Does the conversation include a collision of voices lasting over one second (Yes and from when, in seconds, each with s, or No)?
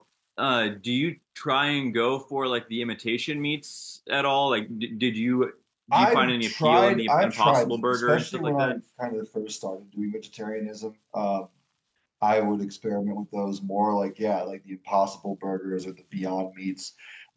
Yes, from 5.9 s